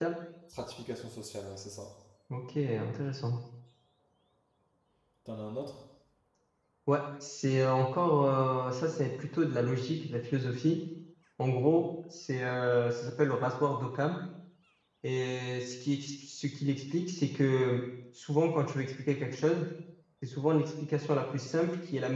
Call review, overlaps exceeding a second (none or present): none